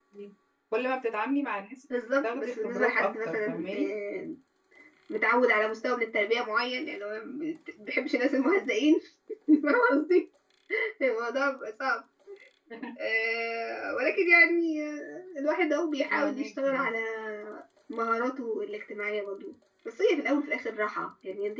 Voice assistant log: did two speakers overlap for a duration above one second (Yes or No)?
Yes